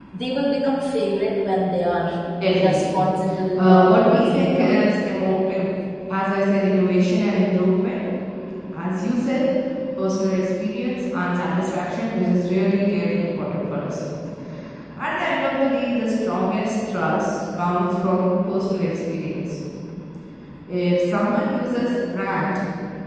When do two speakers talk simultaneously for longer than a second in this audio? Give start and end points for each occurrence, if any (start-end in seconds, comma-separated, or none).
3.6-4.8